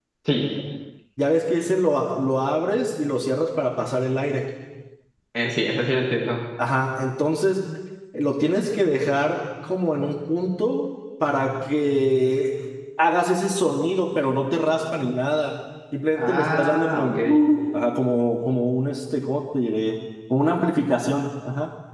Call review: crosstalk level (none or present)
present